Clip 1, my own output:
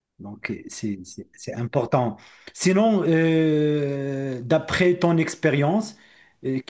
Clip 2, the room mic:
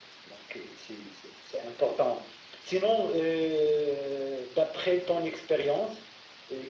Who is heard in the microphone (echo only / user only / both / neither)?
echo only